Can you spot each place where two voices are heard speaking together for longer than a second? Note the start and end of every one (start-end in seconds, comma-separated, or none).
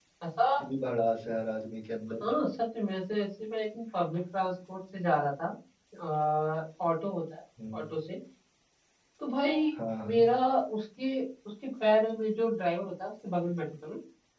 none